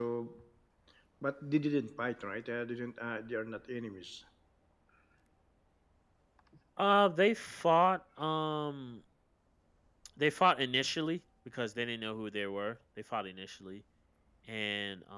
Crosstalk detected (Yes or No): No